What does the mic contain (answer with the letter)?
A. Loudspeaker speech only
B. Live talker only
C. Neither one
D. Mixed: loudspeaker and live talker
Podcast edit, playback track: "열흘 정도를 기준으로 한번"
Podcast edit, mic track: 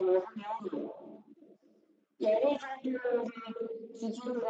A